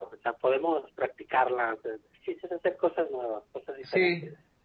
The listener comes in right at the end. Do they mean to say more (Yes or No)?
Yes